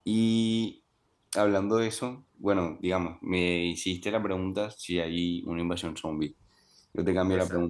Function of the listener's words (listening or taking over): listening